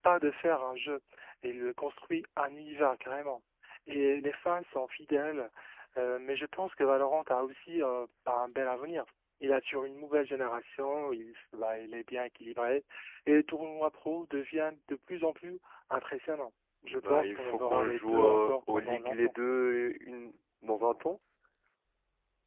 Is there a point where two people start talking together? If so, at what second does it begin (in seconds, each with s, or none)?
16.8 s